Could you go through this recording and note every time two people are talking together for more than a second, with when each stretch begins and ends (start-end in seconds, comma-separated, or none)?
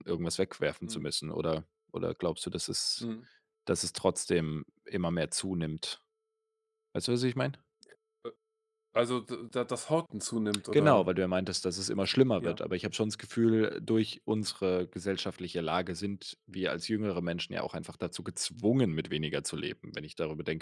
none